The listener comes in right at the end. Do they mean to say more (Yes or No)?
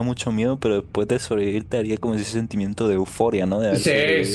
Yes